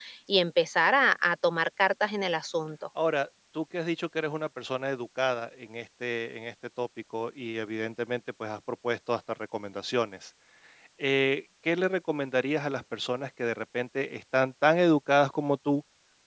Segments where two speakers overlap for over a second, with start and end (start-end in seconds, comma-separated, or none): none